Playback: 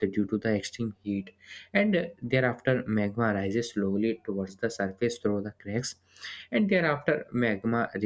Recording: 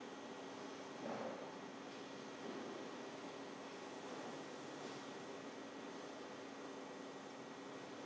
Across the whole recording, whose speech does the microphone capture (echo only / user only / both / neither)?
neither